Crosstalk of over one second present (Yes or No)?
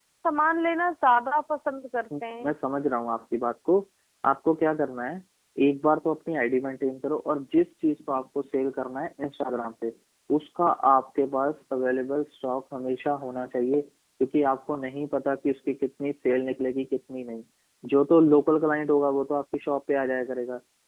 No